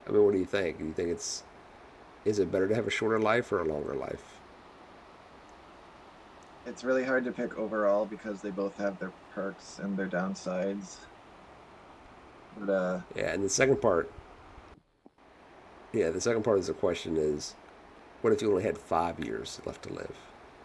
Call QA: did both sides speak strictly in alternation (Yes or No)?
Yes